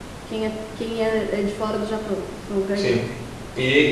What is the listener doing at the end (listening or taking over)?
taking over